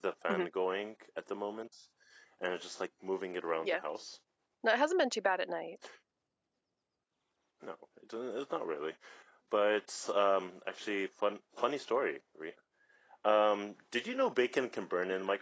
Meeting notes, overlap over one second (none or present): none